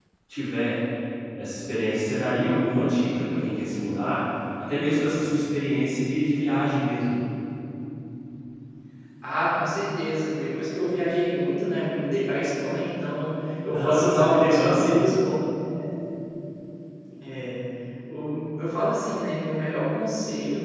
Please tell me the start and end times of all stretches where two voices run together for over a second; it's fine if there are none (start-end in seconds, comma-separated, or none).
13.7-14.9